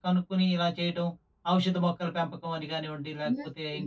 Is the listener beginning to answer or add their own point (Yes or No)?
Yes